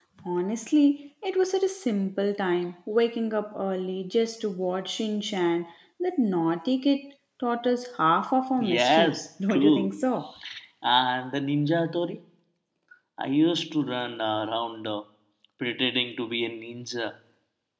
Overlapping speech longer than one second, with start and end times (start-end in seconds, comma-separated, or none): 8.7-10.1